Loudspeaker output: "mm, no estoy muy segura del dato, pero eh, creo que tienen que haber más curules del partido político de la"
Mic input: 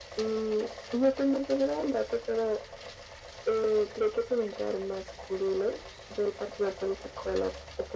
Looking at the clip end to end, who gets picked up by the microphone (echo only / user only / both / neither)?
echo only